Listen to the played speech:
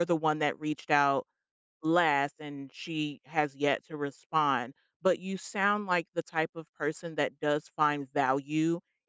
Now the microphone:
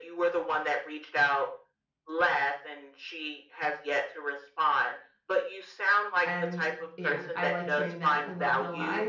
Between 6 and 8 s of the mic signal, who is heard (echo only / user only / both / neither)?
both